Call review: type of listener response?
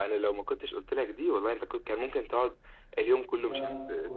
taking over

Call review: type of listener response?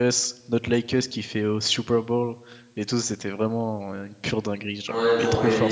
taking over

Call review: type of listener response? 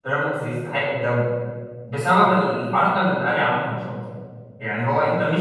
listening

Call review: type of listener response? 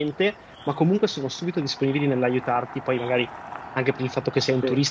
listening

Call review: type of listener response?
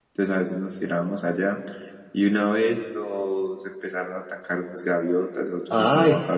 listening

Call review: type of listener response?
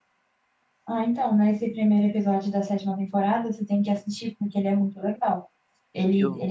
listening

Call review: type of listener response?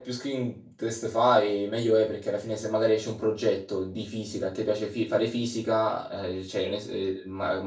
listening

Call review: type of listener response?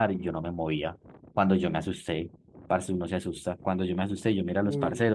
listening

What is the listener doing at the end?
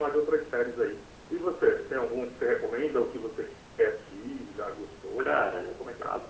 taking over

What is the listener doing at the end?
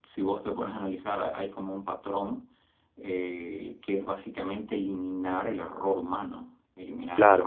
listening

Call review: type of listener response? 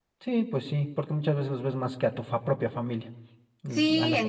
taking over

